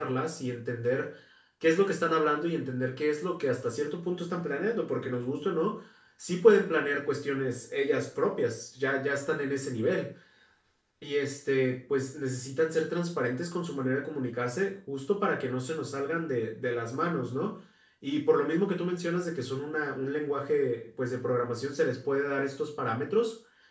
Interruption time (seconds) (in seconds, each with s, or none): none